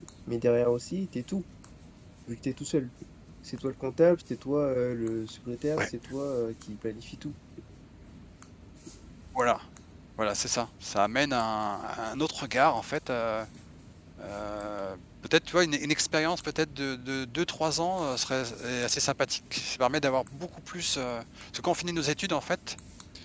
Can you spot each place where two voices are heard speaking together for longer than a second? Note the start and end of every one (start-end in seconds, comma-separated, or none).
none